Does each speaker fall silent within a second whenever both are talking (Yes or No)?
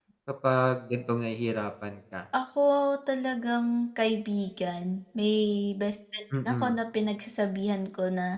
Yes